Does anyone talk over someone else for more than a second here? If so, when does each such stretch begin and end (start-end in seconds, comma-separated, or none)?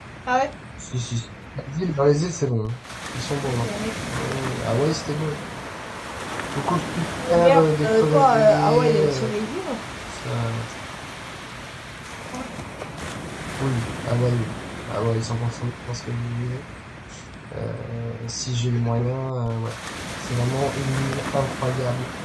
7.3-9.3